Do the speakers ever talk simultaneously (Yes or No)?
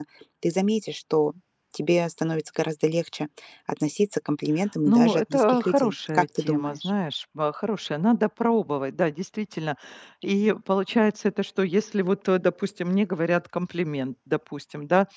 Yes